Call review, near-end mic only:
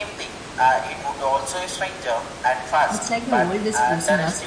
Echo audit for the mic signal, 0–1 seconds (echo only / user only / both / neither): echo only